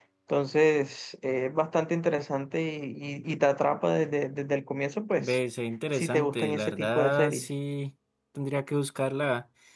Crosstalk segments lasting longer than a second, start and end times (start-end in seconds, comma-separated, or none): 5.9-7.5